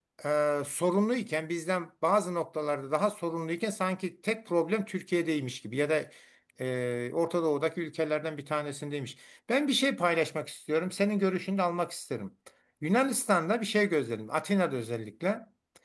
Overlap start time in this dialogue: none

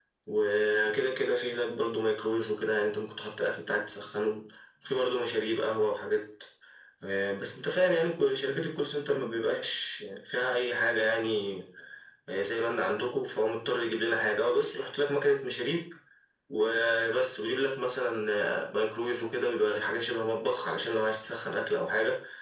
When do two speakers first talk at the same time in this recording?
none

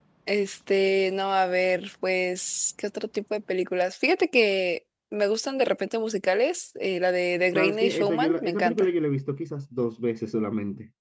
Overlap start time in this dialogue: 7.5 s

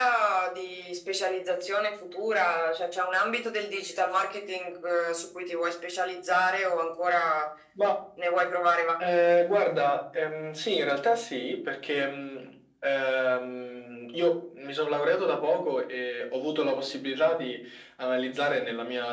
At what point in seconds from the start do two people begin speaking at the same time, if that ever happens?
none

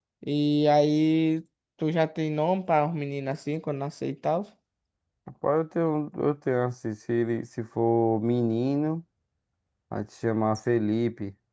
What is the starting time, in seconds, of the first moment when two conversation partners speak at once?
none

